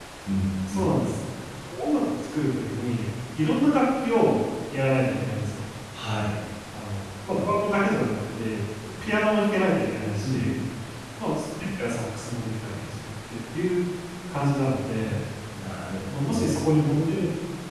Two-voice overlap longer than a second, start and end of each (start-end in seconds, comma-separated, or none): none